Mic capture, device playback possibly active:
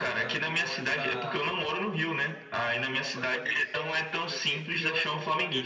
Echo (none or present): present